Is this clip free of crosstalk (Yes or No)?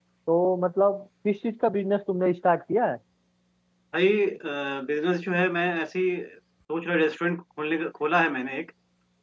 Yes